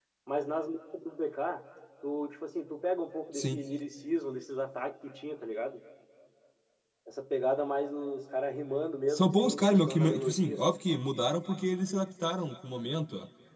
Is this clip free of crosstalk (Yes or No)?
No